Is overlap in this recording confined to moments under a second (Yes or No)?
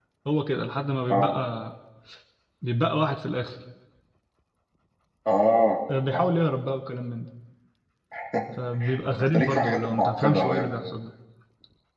No